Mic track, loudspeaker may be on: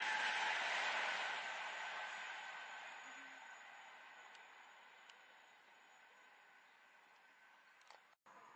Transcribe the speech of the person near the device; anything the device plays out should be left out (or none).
none